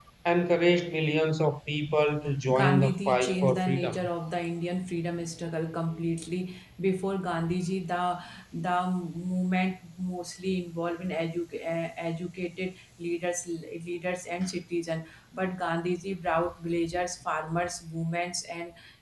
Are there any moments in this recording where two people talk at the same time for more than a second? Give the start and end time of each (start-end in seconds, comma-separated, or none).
2.5-4.0